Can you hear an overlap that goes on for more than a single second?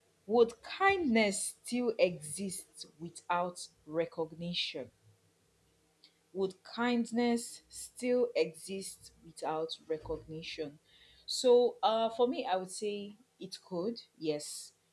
No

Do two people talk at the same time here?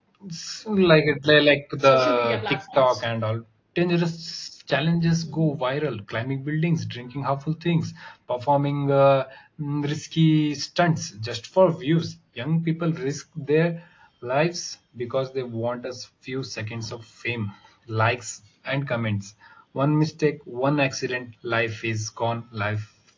Yes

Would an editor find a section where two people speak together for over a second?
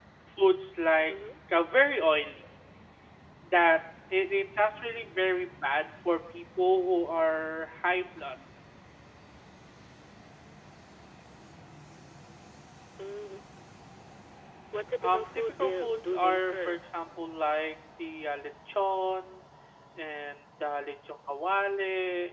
Yes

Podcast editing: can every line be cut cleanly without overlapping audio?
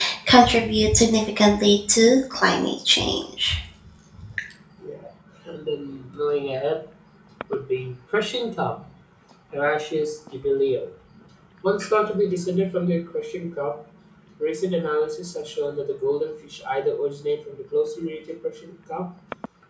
Yes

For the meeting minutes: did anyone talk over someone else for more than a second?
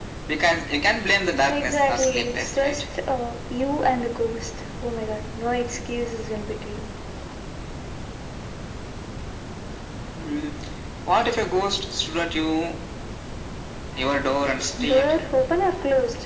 Yes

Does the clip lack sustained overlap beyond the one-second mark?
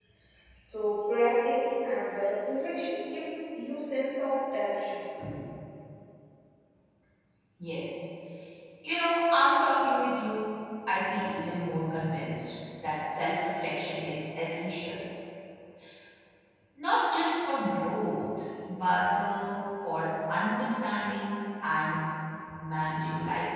Yes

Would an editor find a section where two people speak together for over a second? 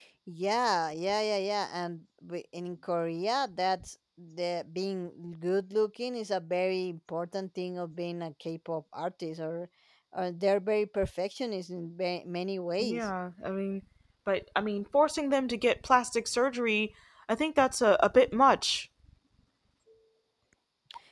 No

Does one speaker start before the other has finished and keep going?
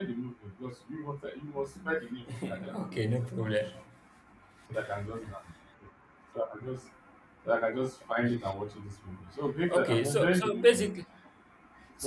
Yes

